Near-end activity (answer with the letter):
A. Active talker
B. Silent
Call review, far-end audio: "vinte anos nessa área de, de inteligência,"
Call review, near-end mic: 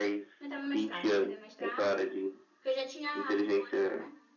A